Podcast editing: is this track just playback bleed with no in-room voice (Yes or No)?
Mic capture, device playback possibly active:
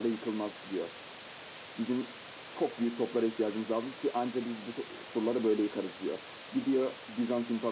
Yes